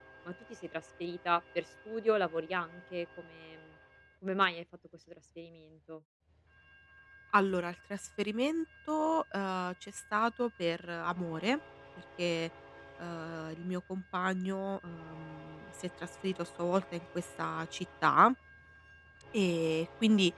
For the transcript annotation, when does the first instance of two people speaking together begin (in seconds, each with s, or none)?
none